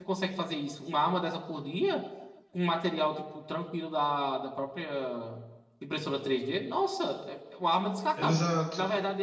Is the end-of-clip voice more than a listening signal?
No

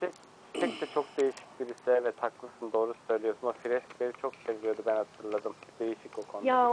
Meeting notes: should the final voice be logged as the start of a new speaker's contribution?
Yes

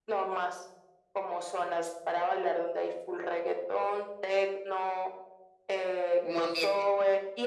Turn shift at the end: No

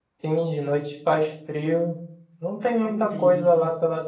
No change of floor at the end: Yes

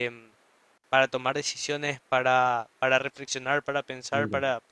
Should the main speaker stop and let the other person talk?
No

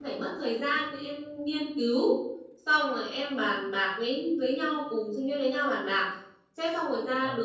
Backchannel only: Yes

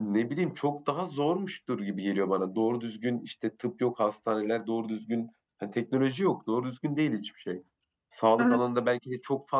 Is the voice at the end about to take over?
No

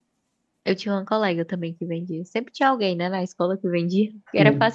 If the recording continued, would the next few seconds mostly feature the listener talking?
No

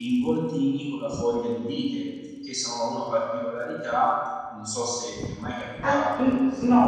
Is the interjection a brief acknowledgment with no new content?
No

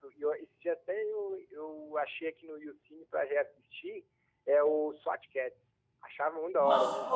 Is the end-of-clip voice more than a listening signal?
Yes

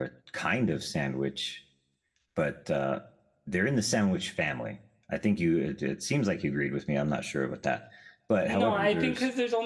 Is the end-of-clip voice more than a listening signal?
Yes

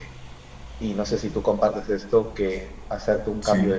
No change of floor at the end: Yes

